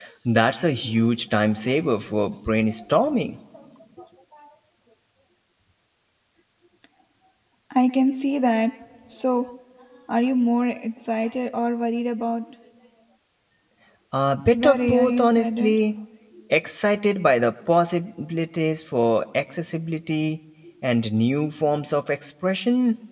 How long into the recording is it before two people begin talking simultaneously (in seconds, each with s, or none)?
14.5 s